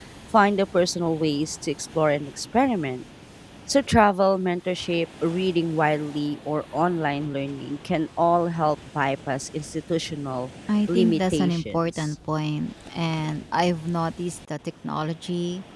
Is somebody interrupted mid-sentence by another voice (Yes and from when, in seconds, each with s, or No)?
Yes, from 10.9 s